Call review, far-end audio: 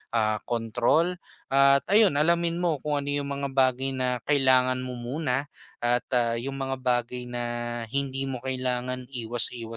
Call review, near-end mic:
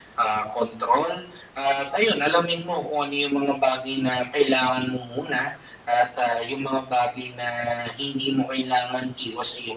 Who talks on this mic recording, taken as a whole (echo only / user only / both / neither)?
echo only